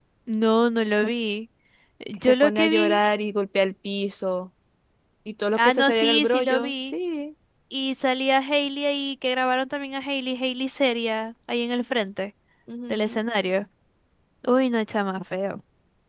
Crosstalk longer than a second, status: present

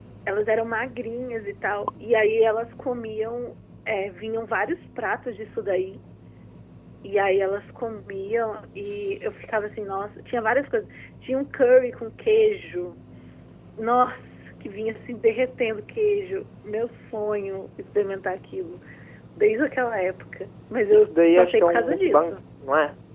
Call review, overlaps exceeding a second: present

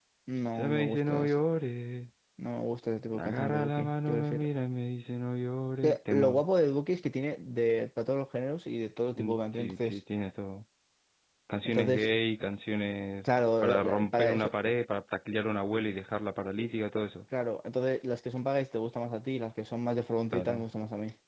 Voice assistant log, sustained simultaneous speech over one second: present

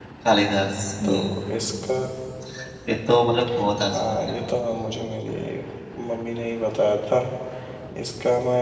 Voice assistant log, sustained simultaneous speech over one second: none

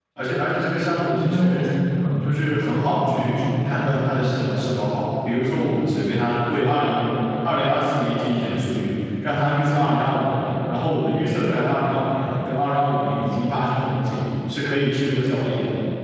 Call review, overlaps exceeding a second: present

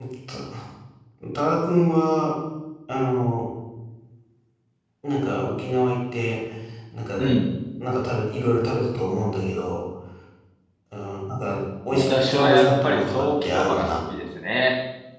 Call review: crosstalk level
present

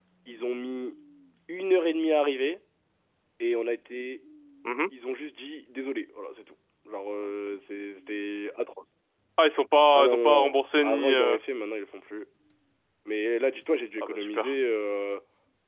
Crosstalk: present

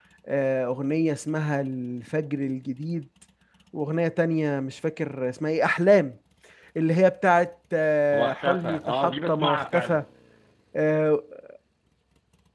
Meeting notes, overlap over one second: present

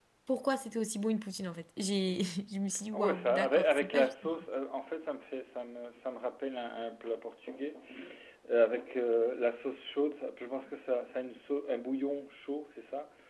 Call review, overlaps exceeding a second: present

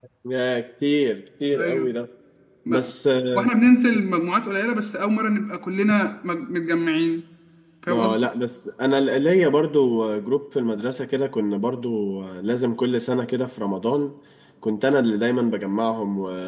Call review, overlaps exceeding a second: none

